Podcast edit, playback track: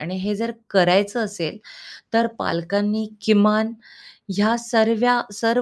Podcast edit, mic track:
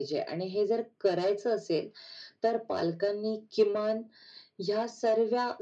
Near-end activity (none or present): none